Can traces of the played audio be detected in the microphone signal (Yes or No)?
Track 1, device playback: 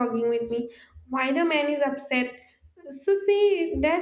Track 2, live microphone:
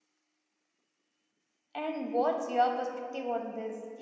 No